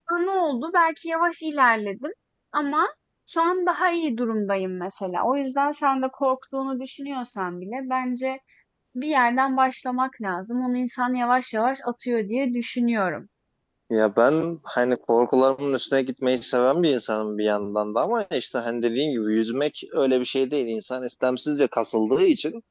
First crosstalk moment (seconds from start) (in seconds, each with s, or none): none